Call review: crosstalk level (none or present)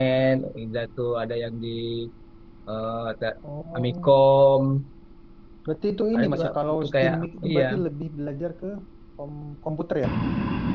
present